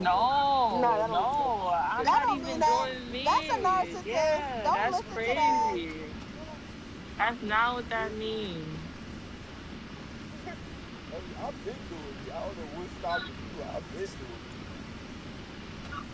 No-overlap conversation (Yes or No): No